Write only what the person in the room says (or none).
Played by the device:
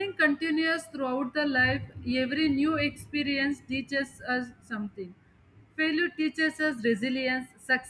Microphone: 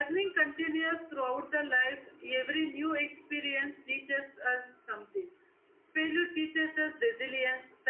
none